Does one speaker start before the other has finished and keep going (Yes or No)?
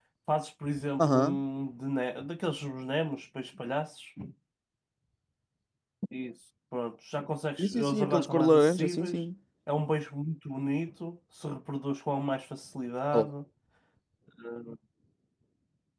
Yes